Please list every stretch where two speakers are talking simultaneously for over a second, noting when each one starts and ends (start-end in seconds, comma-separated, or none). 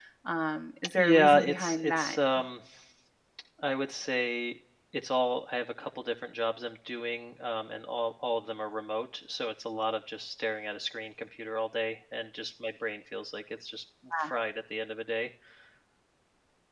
1.0-2.2